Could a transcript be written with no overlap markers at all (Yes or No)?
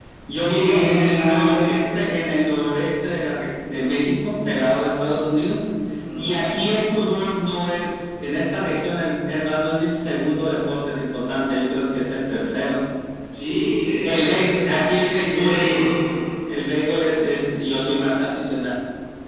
No